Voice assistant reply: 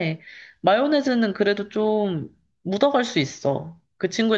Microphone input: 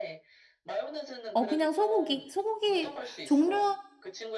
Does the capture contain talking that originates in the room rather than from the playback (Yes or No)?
Yes